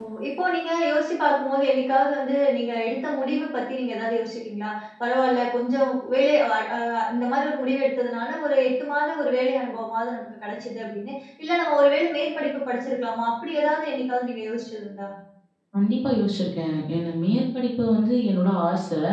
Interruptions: none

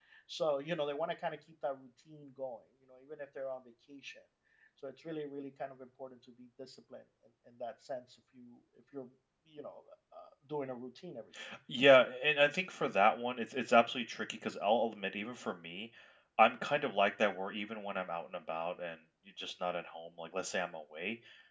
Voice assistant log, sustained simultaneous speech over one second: none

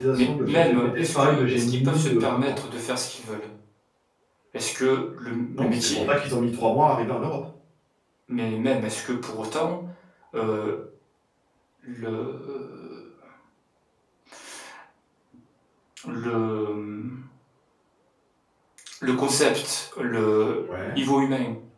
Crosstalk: present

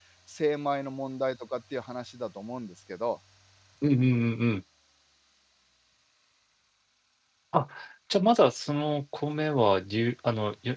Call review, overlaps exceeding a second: none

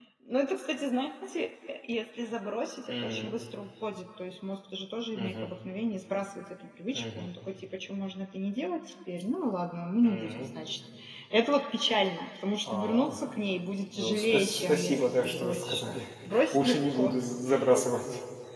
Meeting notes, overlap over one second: present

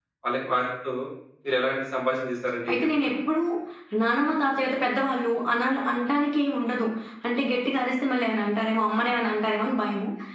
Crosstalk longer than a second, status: none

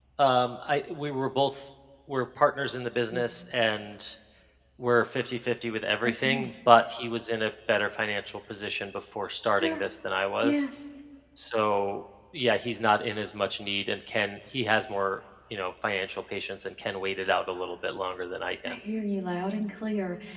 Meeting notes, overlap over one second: none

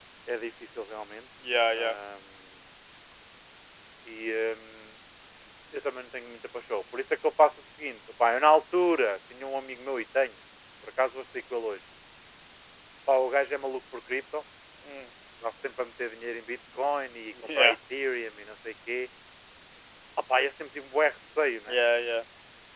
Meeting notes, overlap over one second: none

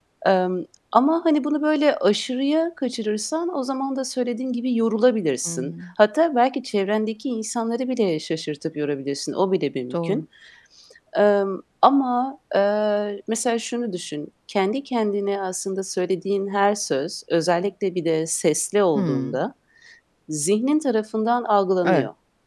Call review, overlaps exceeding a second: none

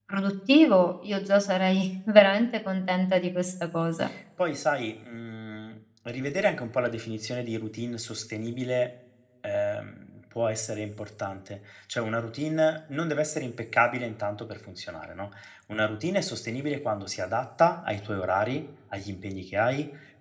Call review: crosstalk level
none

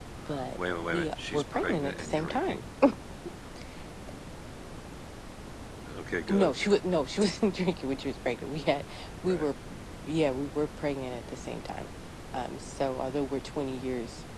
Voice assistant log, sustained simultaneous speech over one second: present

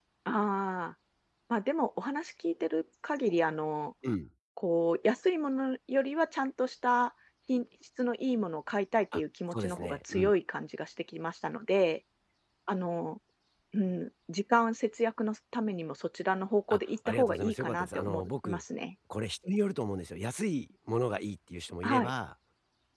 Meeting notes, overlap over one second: present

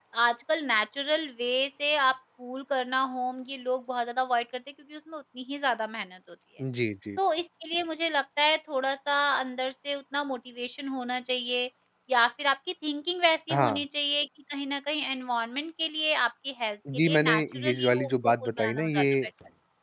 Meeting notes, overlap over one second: present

